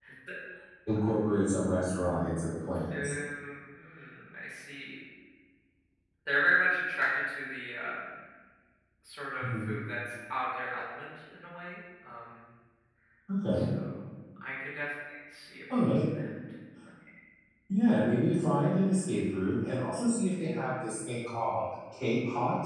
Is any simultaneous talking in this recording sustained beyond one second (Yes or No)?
No